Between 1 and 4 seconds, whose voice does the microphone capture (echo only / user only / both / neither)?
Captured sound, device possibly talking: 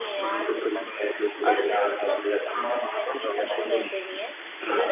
both